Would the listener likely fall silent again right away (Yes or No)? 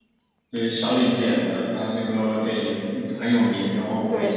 Yes